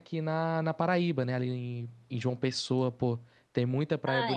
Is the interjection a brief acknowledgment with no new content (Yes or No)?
No